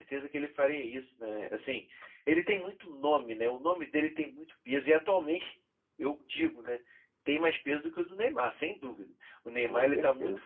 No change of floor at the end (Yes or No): Yes